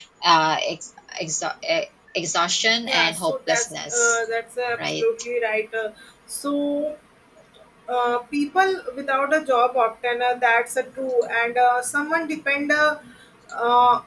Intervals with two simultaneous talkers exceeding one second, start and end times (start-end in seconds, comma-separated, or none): 2.9-4.2